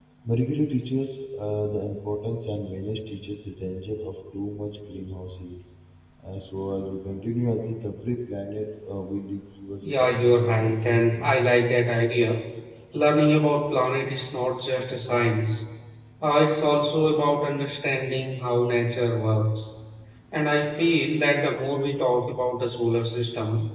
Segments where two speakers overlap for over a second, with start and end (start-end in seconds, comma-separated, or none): 9.8-11.3